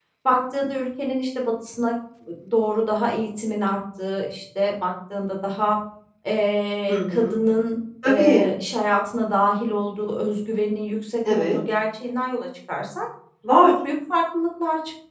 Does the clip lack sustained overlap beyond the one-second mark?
Yes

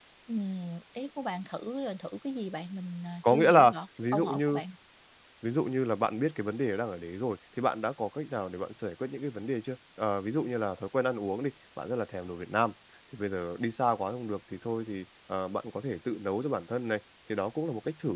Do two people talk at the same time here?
Yes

